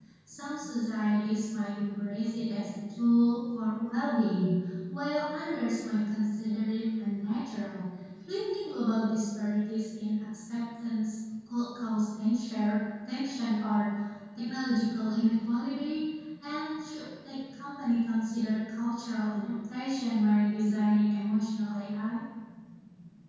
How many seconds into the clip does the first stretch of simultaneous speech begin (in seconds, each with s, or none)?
none